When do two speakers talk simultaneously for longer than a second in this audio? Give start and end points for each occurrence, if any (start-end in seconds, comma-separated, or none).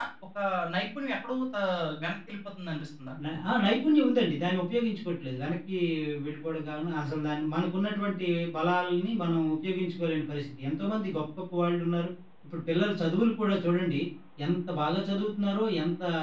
none